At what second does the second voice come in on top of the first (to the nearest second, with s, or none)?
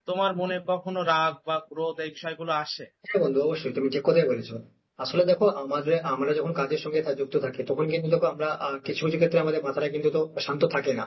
none